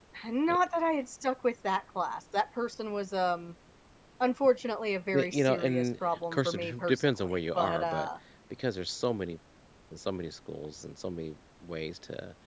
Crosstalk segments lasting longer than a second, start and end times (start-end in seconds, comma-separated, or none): 5.1-8.1